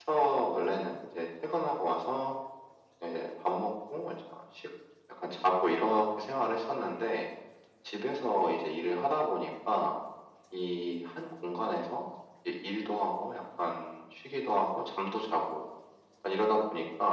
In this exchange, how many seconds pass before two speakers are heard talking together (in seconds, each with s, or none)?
none